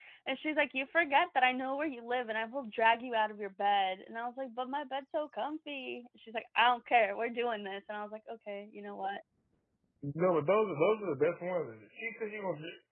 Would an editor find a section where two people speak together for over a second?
No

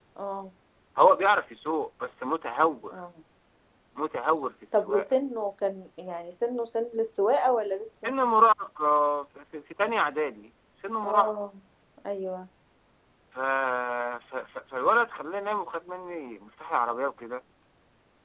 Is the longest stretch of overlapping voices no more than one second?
Yes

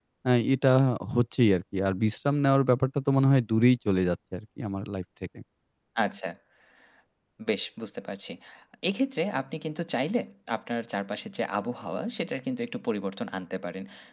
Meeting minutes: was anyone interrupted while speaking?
No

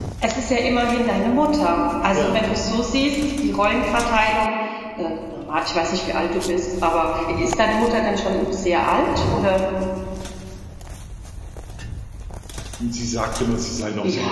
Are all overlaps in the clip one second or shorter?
Yes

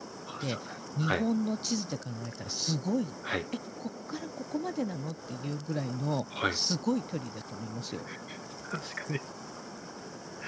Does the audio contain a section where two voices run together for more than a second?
No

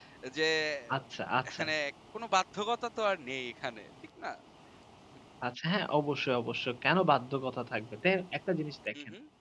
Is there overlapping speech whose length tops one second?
No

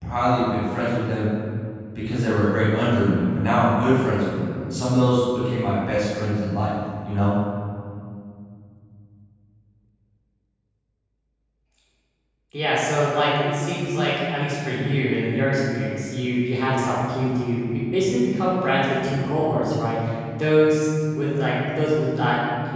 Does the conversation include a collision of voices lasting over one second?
No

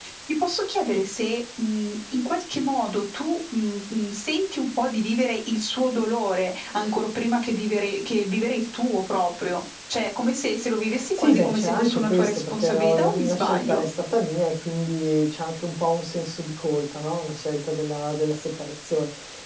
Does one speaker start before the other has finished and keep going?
Yes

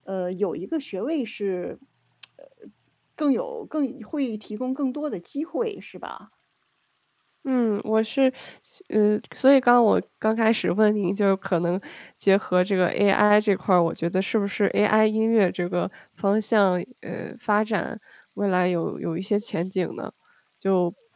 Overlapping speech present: No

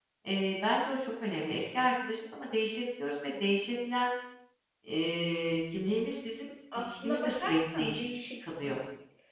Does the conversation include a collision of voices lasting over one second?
Yes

